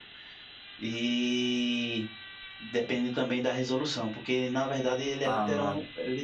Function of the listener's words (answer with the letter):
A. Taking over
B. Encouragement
B